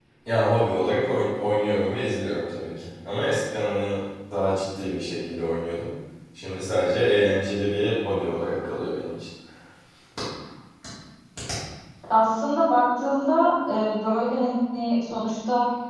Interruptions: none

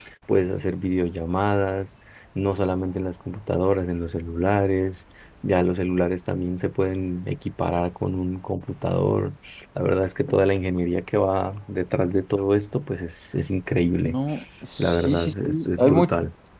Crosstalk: present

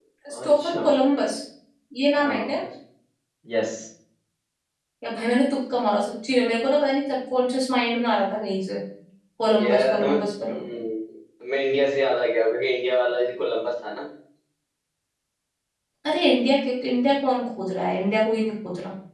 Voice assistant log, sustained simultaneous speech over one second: present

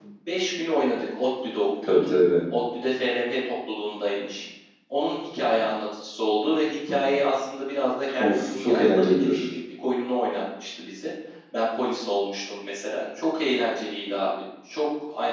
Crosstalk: present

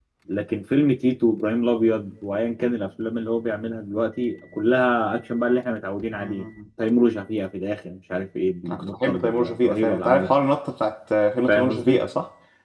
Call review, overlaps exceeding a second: present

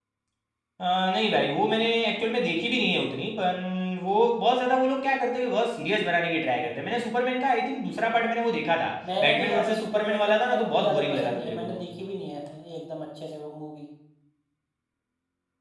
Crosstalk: present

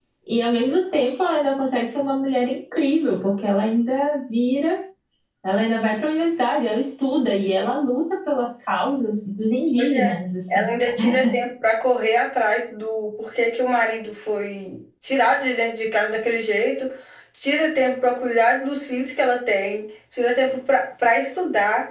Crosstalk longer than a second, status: none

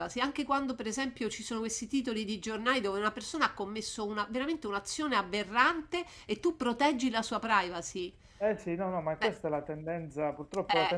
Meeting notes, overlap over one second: none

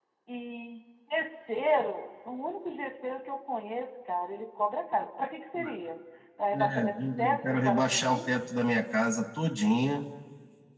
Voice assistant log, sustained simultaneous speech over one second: present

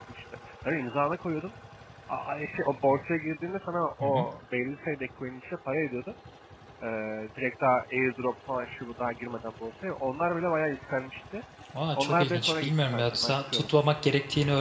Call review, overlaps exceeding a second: present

